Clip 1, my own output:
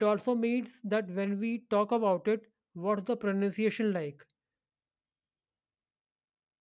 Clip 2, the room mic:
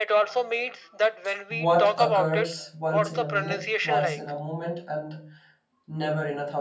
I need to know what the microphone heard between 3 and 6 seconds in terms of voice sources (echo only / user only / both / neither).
both